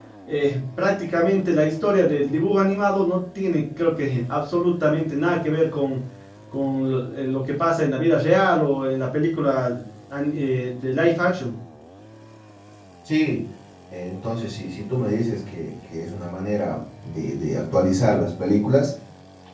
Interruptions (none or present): none